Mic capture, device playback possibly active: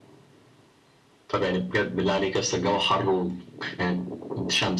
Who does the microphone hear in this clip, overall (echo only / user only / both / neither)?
echo only